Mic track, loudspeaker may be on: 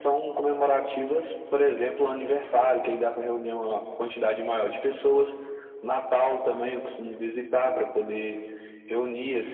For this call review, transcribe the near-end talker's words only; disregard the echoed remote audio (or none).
none